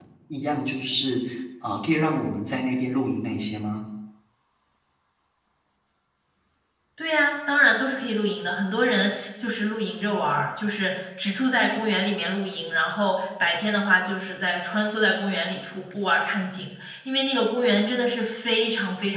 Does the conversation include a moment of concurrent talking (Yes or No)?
No